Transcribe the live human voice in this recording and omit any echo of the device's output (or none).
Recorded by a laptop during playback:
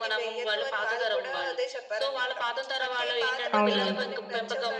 అవునవును.